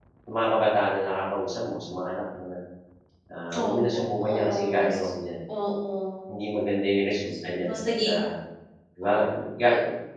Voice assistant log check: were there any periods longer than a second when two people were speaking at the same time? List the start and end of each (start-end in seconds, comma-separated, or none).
3.5-4.9